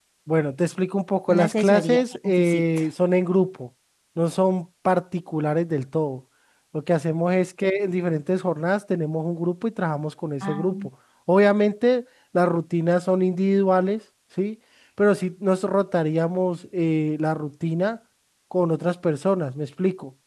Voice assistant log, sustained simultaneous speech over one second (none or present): present